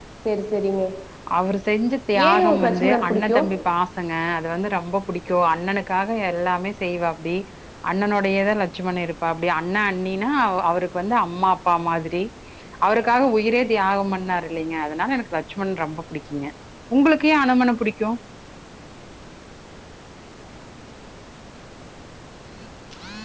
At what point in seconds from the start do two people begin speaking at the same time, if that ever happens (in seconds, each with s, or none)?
2.3 s